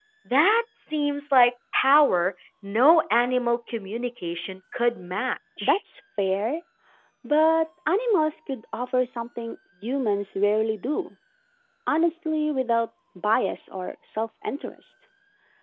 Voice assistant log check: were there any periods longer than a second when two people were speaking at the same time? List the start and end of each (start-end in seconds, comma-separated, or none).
none